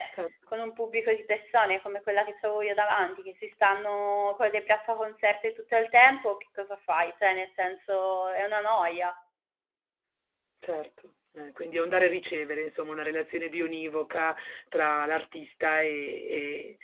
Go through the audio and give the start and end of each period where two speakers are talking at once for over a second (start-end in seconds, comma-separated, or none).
none